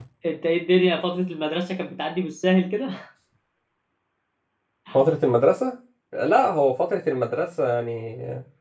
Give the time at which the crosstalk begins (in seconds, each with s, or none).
none